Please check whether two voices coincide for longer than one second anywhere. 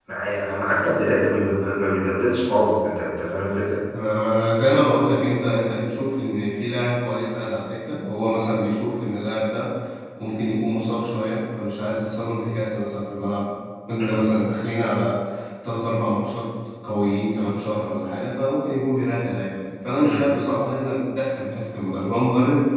No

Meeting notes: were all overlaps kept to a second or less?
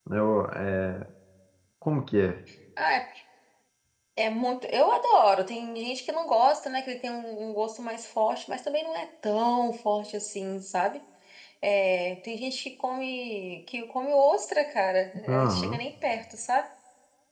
Yes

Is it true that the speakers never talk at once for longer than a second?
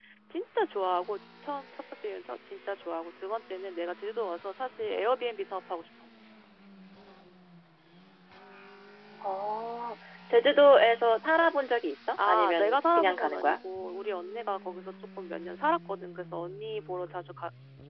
No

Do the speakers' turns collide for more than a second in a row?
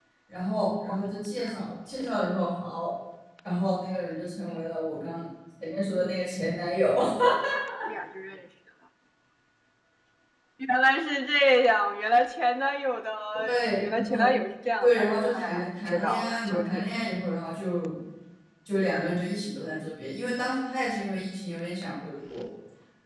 Yes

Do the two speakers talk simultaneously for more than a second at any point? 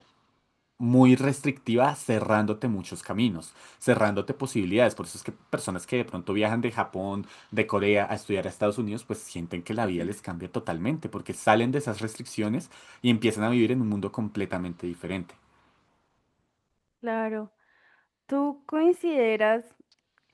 No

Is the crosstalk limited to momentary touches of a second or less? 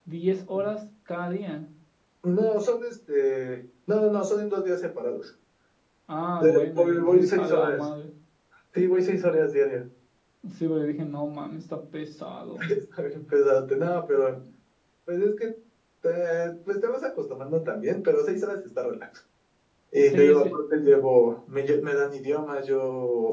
No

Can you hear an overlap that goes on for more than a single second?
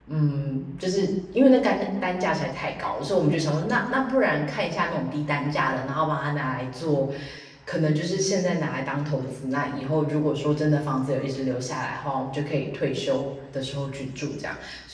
No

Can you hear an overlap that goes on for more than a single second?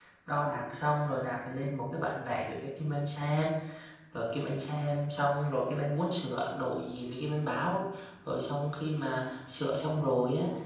No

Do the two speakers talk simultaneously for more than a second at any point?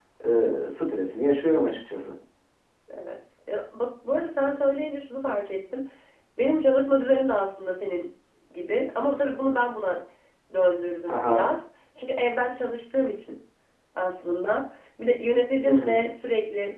No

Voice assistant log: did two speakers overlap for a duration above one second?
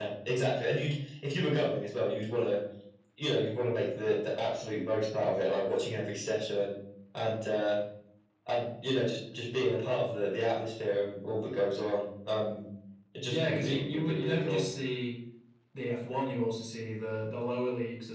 Yes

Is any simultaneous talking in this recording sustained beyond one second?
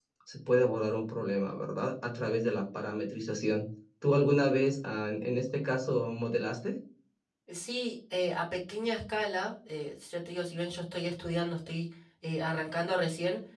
No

